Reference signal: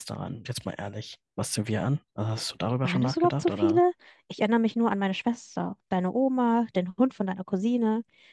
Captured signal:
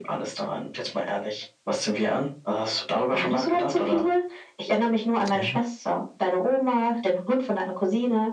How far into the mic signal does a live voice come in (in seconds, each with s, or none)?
5.3 s